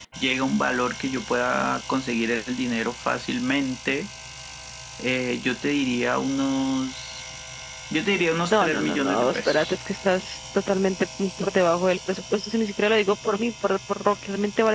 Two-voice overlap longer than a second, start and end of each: 8.5-9.8

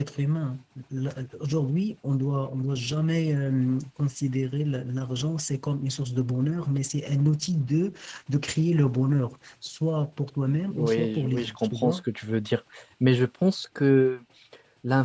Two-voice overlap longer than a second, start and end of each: 10.7-12.0

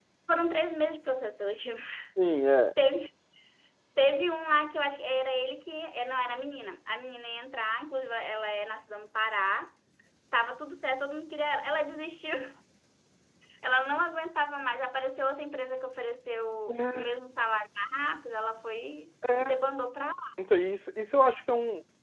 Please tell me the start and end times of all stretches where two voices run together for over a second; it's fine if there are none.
none

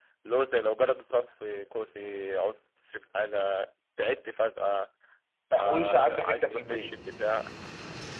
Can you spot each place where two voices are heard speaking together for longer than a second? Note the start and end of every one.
5.6-6.9

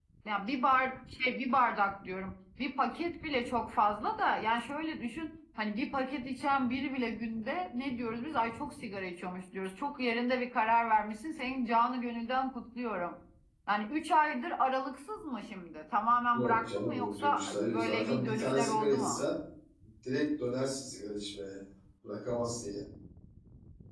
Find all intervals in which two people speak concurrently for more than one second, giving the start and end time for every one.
16.3-19.2

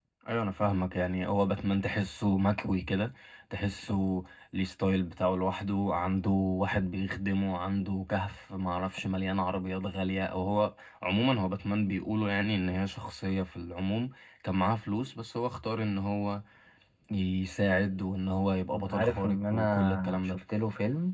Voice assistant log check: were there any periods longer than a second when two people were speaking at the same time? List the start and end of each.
18.7-20.4

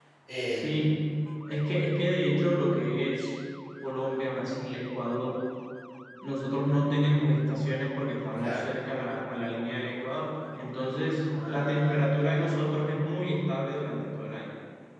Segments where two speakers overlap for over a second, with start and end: 11.3-12.5

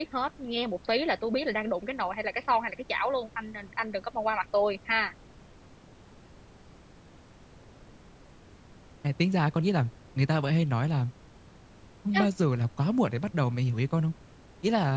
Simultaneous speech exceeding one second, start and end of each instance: none

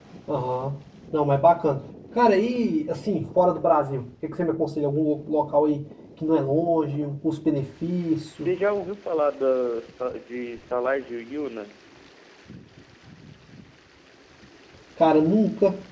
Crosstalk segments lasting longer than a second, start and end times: none

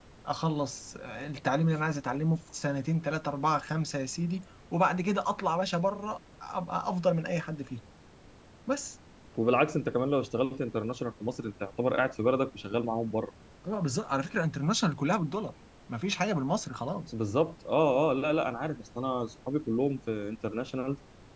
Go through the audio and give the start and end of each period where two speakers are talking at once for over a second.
none

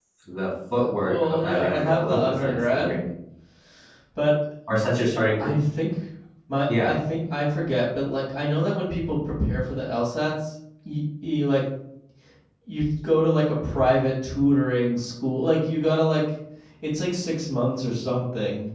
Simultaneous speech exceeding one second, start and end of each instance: 1.0-3.0

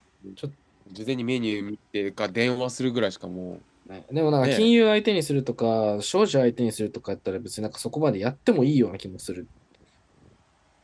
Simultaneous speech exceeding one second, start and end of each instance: none

